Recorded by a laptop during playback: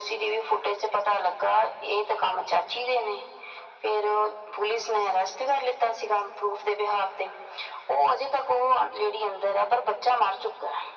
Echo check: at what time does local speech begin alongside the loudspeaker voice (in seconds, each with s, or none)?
none